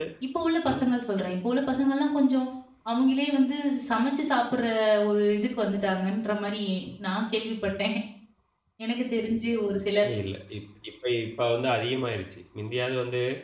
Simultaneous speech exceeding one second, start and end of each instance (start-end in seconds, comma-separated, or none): none